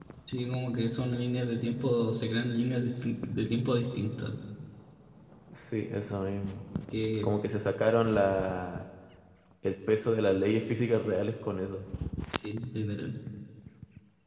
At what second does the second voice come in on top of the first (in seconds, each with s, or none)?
none